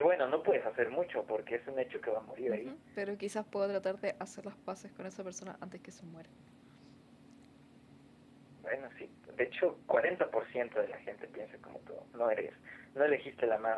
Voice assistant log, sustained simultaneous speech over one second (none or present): none